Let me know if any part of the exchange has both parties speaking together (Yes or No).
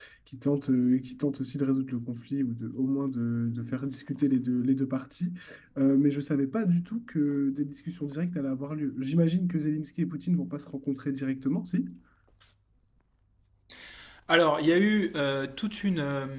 No